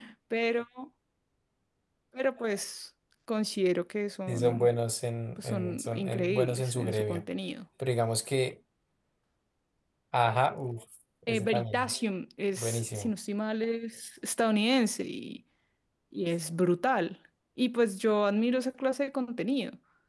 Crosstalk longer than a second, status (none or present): present